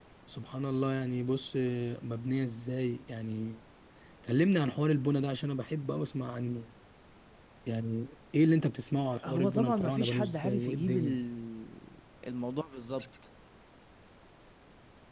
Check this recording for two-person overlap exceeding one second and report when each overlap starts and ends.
9.2-11.2

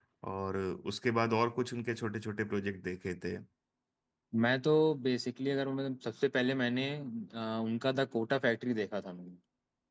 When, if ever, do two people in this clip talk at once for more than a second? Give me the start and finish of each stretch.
none

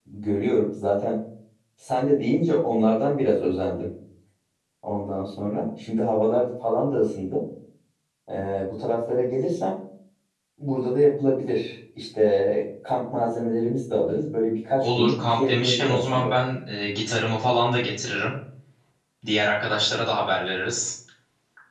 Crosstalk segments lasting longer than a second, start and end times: 14.8-16.3

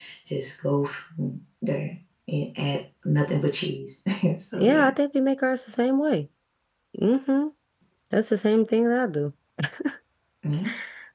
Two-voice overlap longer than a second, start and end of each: none

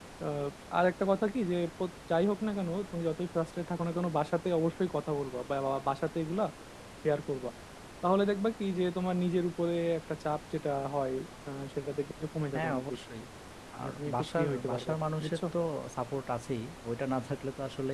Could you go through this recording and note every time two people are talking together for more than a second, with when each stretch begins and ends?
13.8-15.4

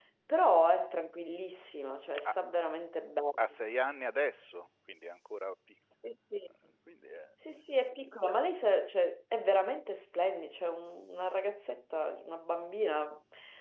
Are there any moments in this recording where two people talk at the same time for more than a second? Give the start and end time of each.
none

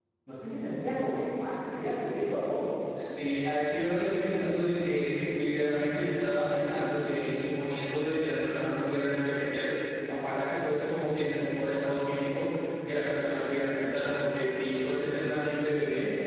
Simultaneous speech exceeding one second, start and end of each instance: none

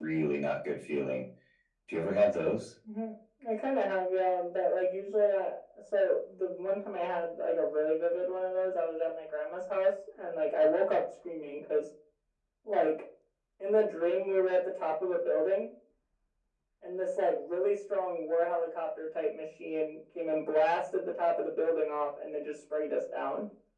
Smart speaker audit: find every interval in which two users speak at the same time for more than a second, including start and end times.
none

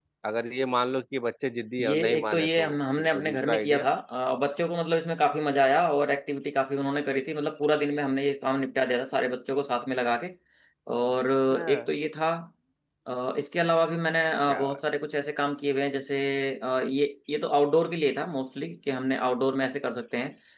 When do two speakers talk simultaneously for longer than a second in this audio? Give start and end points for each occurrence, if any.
1.8-3.9

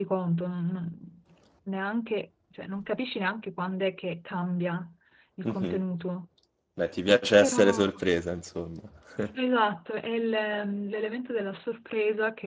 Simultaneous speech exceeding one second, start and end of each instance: none

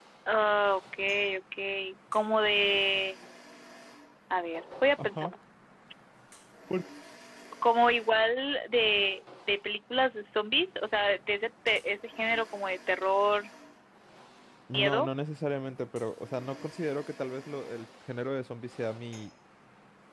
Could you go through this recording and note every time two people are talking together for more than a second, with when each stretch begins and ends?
none

